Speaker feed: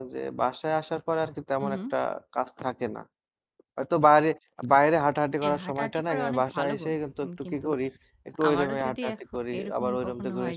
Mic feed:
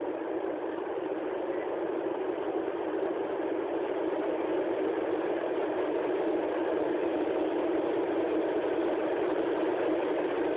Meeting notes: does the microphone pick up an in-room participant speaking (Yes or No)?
No